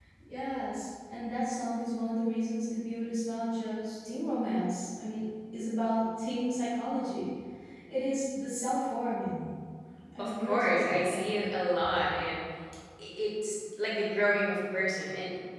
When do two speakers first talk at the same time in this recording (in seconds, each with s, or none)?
10.2 s